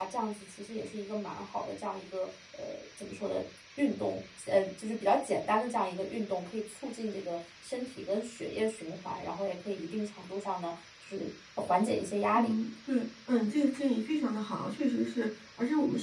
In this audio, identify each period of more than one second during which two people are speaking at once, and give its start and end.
none

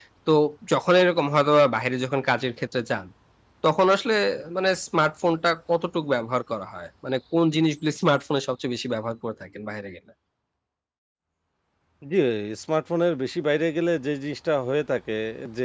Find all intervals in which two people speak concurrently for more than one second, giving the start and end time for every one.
none

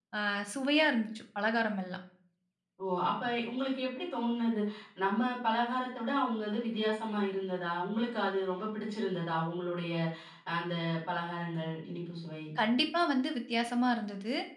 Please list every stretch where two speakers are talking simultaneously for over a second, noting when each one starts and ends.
none

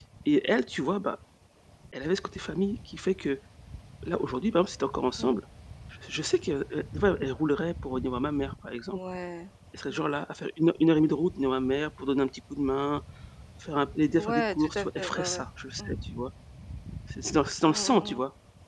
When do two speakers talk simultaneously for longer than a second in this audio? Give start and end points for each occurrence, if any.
14.2-15.4

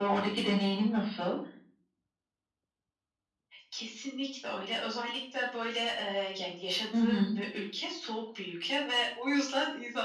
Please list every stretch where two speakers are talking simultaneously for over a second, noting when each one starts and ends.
none

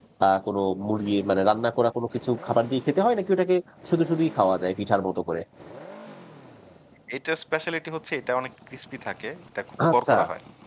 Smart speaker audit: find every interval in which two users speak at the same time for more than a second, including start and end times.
none

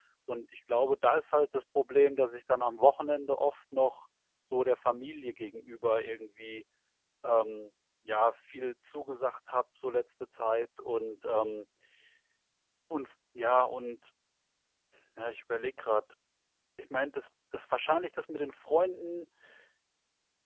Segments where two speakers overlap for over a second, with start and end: none

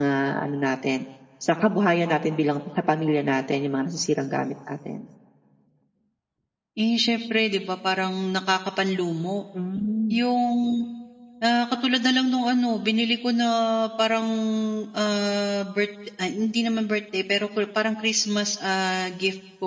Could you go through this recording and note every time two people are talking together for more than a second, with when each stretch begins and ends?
none

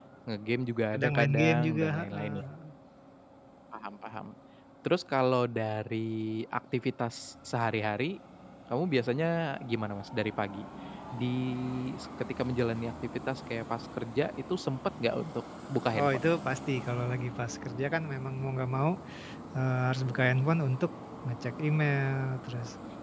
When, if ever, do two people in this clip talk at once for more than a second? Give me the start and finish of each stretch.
0.9-2.5

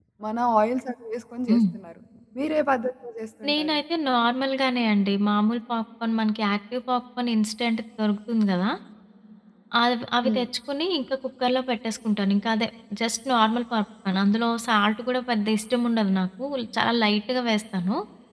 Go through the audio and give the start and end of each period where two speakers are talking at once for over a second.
none

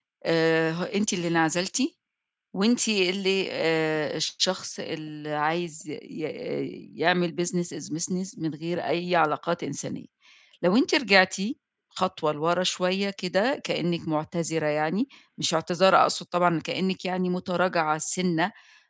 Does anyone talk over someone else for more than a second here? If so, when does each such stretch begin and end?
none

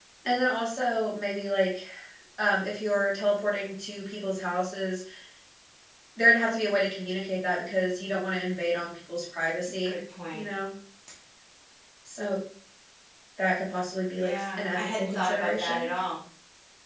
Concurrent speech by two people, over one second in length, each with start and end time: 14.1-15.9

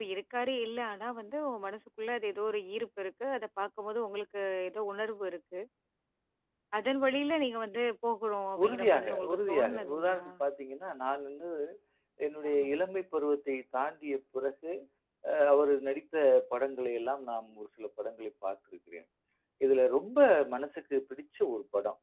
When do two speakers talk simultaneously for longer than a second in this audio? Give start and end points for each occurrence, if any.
8.6-10.2

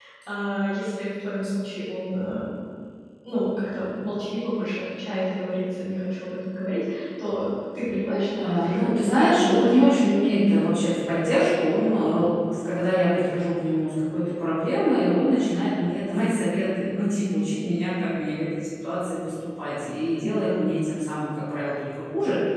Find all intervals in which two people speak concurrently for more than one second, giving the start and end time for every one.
8.4-10.0

